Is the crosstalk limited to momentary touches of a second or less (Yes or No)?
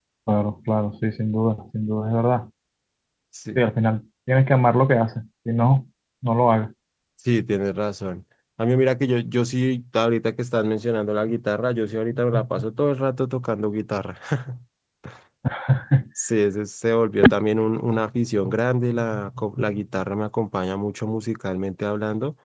Yes